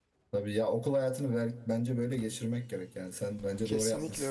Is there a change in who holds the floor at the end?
Yes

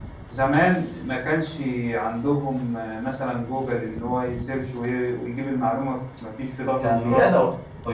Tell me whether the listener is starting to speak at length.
Yes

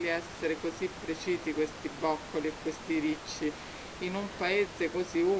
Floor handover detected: No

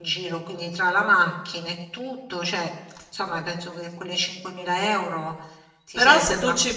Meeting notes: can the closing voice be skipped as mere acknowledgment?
No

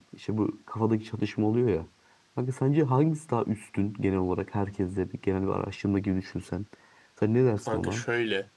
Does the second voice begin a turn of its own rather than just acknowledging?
Yes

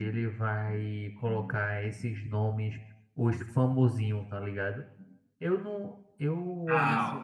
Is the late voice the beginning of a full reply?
Yes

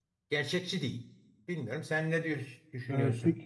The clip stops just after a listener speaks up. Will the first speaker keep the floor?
No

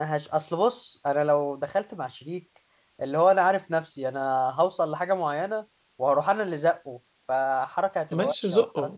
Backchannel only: No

